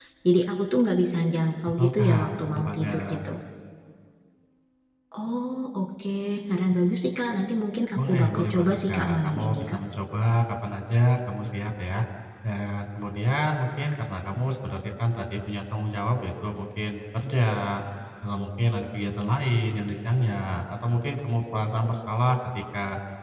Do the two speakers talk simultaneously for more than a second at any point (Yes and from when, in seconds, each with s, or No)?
Yes, from 1.8 s